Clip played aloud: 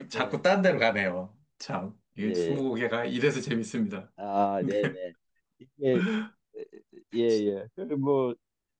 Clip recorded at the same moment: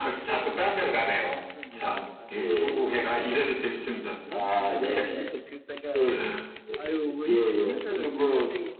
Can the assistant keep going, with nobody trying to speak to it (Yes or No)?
No